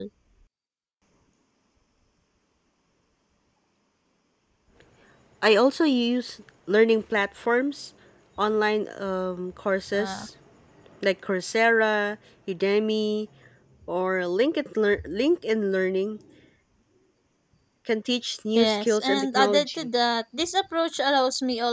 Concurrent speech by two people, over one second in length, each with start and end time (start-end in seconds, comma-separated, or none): 18.6-19.9